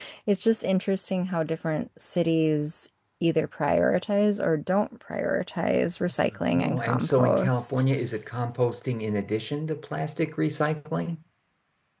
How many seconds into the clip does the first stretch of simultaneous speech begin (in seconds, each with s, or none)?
6.5 s